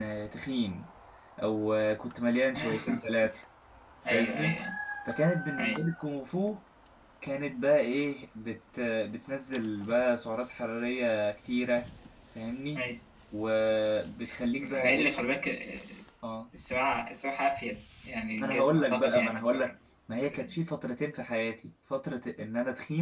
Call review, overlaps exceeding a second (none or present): present